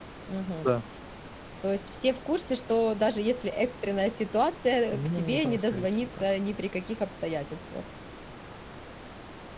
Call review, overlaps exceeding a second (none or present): present